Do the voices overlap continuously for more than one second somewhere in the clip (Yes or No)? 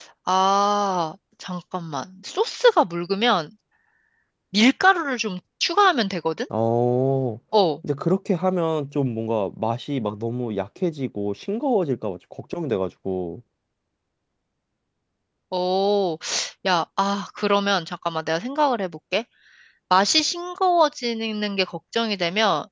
No